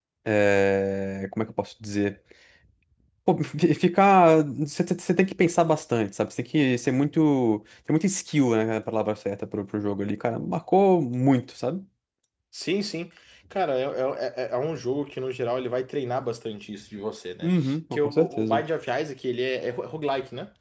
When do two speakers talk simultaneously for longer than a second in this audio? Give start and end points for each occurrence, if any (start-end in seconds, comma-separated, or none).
17.4-18.6